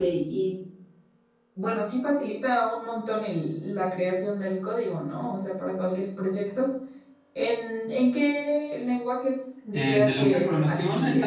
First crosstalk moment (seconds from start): 9.7 s

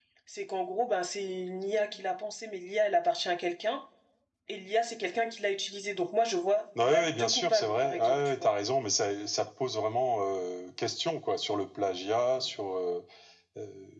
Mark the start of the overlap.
6.8 s

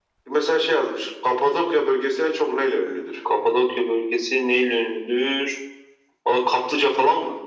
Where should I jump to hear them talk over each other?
none

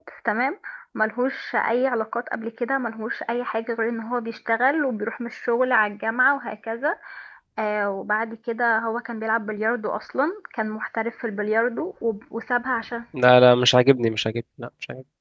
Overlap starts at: none

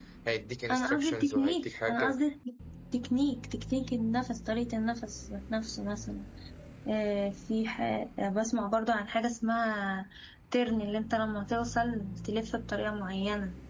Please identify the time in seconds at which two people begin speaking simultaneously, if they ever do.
0.7 s

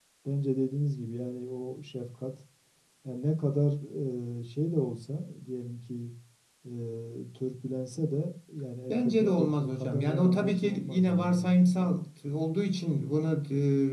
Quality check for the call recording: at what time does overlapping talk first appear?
8.9 s

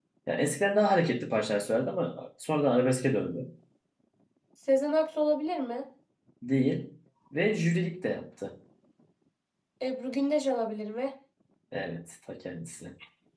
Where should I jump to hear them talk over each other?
none

